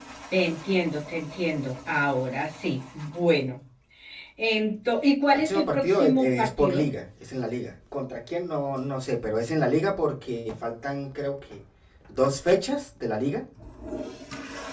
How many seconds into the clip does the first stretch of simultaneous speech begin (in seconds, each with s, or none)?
5.3 s